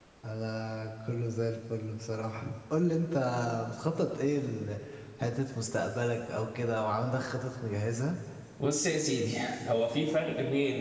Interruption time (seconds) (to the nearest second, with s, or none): none